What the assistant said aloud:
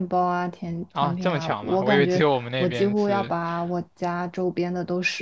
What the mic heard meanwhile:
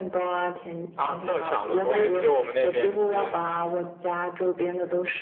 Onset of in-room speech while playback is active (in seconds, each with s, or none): none